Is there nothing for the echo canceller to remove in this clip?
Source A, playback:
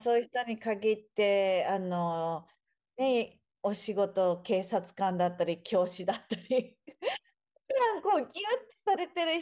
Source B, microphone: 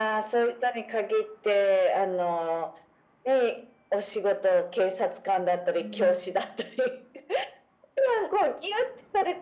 No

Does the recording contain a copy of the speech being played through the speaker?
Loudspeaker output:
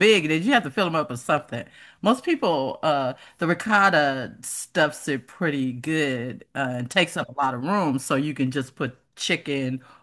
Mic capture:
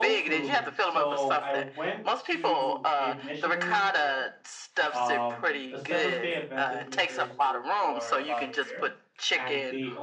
Yes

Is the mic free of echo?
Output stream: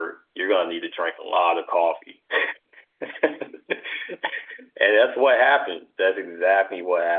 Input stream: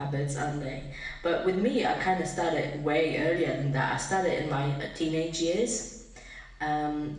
Yes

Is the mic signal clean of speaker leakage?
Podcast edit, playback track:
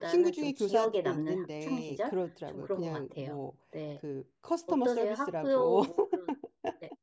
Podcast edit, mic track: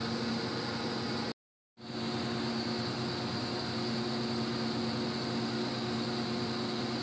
Yes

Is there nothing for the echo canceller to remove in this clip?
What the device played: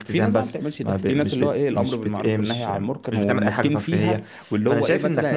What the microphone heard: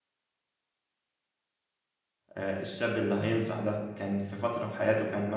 Yes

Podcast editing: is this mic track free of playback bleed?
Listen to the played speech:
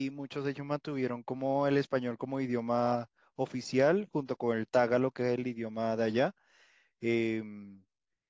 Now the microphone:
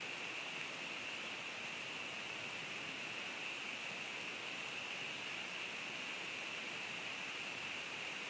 Yes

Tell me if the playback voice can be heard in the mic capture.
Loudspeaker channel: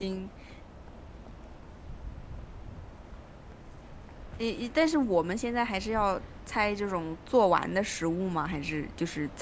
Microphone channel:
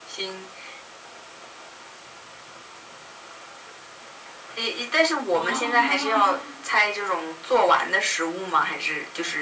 Yes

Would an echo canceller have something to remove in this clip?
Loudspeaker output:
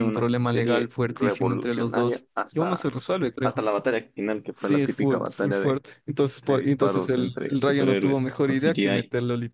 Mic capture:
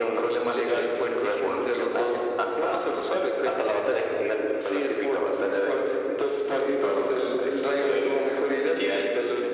Yes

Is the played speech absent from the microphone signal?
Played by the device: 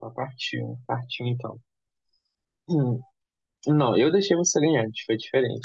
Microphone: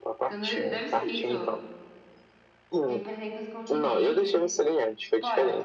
No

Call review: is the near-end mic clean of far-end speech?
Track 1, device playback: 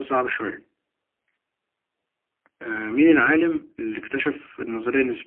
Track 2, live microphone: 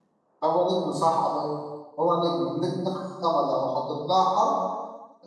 Yes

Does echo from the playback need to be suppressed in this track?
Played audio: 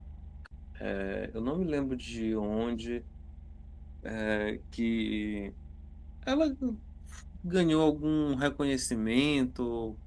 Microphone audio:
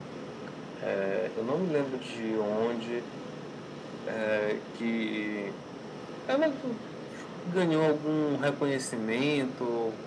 Yes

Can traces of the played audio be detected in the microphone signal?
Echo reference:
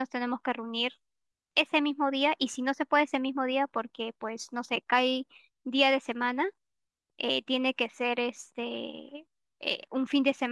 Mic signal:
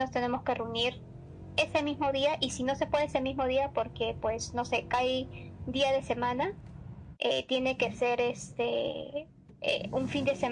Yes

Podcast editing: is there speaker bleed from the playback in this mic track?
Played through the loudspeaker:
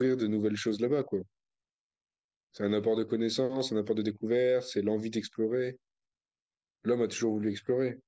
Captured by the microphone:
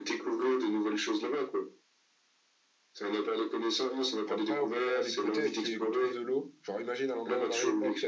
Yes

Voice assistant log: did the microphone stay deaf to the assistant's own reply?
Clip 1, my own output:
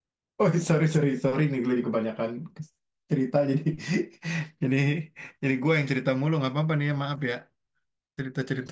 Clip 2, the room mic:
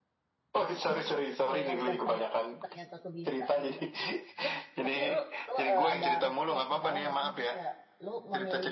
No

